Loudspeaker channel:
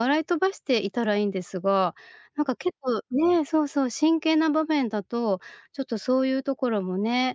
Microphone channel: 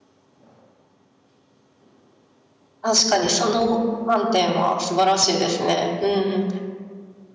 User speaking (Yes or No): Yes